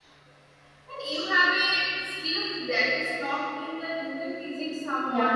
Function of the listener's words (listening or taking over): listening